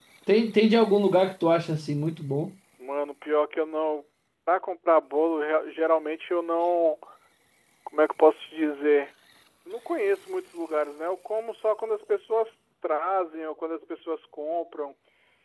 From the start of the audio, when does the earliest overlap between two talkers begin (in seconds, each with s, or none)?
none